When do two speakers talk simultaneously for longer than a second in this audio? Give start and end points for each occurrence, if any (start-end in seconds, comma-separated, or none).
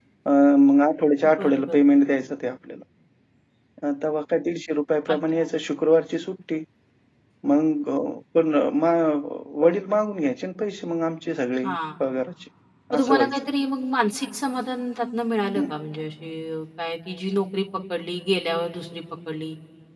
none